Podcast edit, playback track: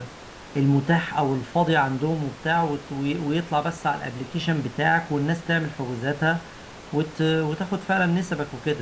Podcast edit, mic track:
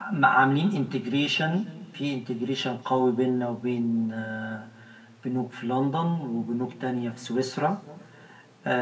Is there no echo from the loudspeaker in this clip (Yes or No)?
Yes